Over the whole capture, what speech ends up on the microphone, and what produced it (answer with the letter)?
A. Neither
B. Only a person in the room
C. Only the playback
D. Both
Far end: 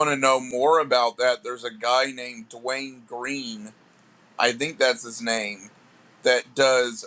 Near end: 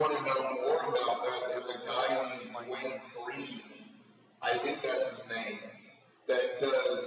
D